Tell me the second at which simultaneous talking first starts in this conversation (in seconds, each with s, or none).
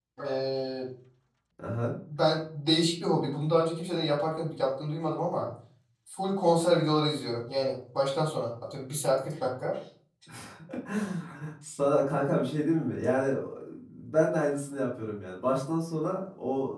none